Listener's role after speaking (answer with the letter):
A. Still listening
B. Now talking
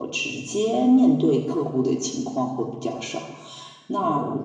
A